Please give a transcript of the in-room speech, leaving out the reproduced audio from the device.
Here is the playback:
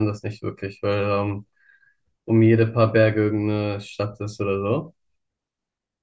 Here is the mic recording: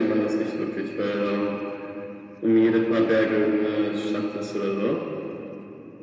none

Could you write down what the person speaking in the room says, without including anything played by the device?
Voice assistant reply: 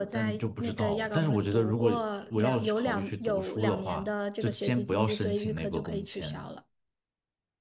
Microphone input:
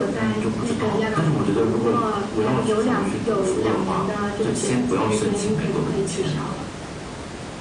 none

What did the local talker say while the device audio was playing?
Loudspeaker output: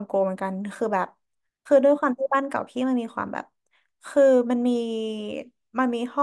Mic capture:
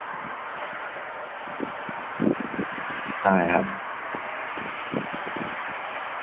ใช่ครับ

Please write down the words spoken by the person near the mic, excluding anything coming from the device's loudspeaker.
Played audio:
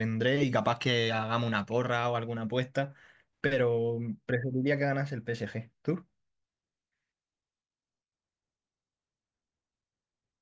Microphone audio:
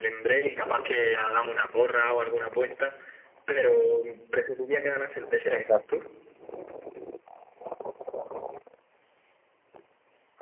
exacto.

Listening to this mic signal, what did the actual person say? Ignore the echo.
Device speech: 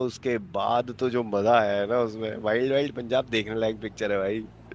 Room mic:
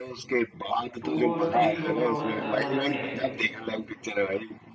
टू और थ्री दोनों ऐसा मजा नहीं आई

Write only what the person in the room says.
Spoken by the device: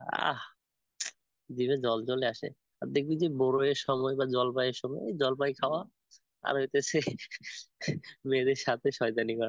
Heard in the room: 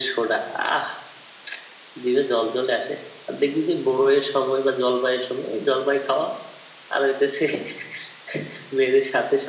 none

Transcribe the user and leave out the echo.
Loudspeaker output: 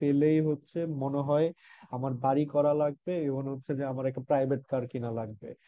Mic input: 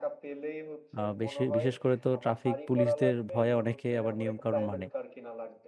আহ, বেশি বিশেষ করে তো ট্রাফিক পুলিশদের ভয়ে অনেকে আবার নিয়ম কানুন মানে

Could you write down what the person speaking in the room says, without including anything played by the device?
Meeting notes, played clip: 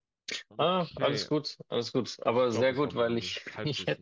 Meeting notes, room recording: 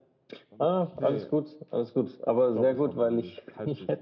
none

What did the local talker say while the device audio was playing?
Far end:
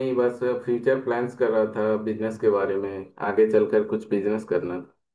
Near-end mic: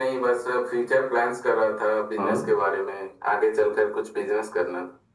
हाँ

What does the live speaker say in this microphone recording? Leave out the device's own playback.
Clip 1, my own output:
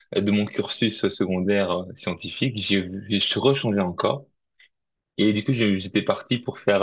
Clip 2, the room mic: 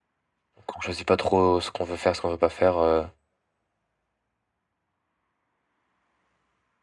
qu'on choisit pas trop ce qu'on veut faire, ce qu'on veut pas faire. euh,

